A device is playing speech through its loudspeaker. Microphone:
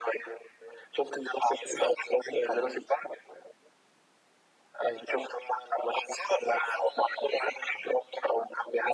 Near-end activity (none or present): none